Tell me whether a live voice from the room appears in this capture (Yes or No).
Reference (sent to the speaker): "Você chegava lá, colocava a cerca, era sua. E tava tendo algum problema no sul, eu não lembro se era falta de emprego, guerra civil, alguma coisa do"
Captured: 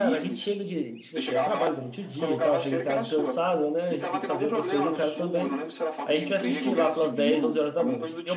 Yes